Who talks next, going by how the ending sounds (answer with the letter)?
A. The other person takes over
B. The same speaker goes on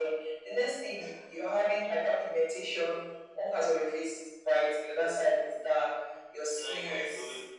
A